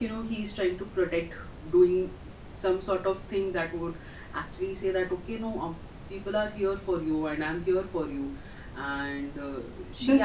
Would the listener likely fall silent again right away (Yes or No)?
No